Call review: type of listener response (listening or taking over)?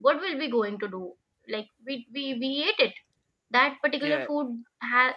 listening